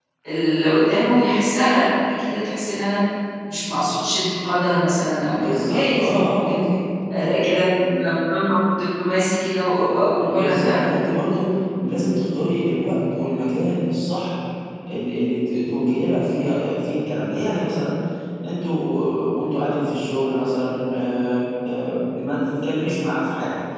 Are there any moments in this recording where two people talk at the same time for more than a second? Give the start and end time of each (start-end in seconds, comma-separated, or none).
5.4-6.6